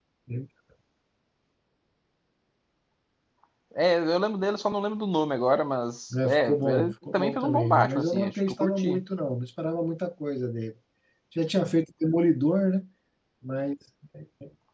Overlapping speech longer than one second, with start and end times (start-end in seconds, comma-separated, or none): 6.2-9.0